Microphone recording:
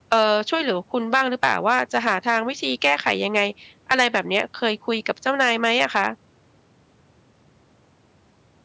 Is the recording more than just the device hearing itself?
Yes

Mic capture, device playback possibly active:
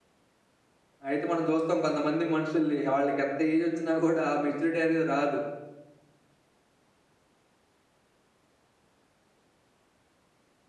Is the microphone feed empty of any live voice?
No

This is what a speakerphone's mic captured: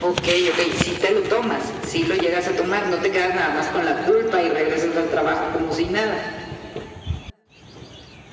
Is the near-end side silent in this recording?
Yes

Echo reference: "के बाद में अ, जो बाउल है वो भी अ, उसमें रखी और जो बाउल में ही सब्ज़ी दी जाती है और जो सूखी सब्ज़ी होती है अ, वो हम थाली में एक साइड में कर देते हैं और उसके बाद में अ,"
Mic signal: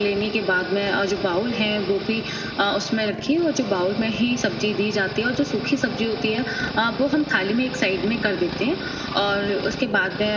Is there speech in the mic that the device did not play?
No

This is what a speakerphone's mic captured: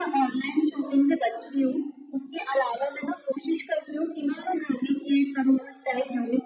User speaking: No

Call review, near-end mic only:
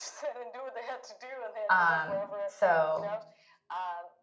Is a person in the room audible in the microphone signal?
Yes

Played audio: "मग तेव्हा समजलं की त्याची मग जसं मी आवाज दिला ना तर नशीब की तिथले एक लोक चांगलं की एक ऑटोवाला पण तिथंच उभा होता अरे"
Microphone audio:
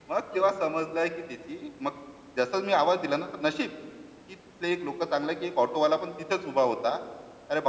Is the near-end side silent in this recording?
No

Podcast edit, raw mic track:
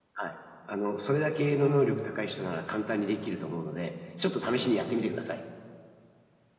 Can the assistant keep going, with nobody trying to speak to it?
No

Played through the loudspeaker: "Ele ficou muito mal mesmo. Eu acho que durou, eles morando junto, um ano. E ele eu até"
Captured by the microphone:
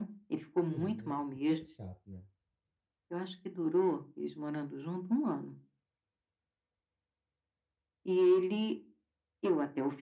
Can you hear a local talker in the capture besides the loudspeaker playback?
Yes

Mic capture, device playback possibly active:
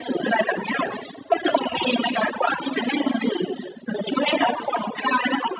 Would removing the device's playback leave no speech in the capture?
Yes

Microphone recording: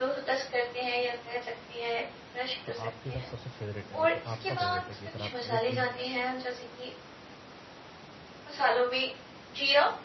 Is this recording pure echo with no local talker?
No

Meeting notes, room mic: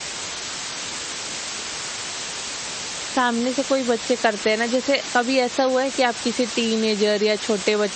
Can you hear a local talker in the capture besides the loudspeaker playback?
Yes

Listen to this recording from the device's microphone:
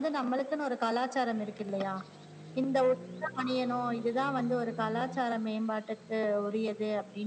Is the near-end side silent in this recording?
Yes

